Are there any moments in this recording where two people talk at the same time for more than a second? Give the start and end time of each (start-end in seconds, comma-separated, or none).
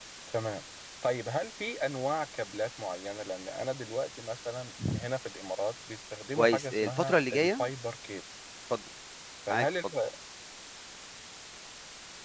6.4-7.6